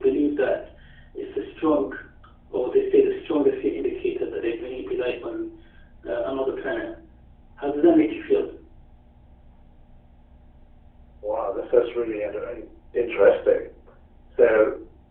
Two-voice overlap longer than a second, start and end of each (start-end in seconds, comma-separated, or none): none